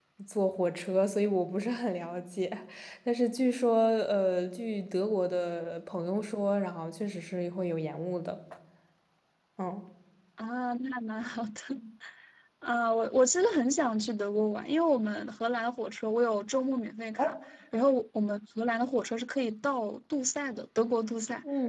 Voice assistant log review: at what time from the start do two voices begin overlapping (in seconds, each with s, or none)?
none